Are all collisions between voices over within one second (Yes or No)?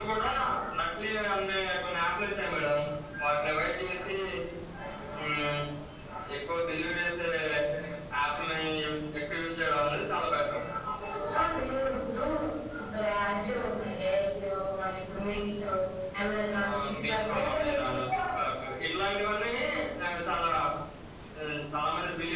No